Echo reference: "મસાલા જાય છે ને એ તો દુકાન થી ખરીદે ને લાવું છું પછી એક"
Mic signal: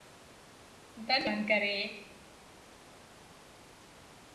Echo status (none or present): none